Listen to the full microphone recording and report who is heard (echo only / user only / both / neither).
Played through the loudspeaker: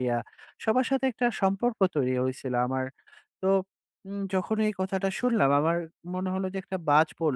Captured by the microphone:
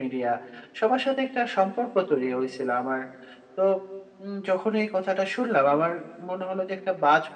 echo only